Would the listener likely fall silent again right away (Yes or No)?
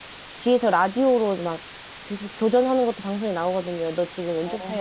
Yes